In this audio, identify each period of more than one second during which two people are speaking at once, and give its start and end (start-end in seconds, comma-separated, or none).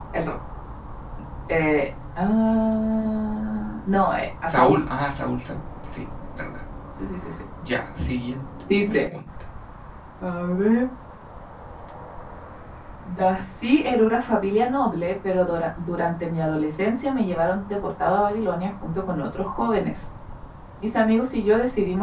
none